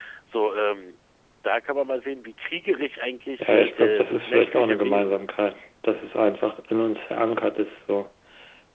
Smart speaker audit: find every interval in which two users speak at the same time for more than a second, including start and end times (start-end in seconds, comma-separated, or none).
3.4-5.2